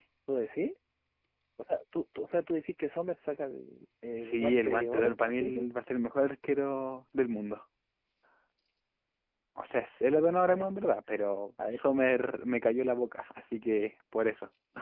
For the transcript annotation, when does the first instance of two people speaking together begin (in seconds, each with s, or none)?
4.2 s